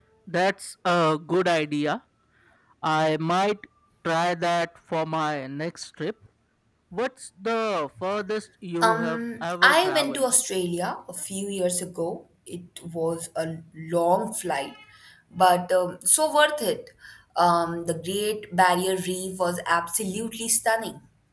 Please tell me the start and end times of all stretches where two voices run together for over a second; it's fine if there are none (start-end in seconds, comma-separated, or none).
8.8-10.2